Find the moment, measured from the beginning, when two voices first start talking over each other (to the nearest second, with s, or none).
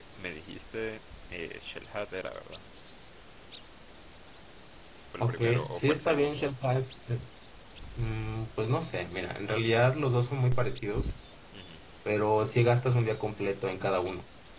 5 s